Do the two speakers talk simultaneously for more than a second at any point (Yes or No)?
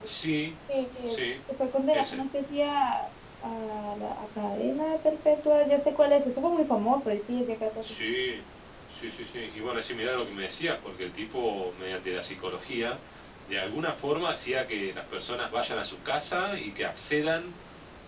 No